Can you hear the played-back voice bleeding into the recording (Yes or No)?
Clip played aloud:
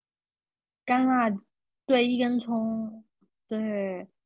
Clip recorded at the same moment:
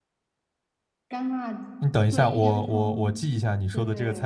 Yes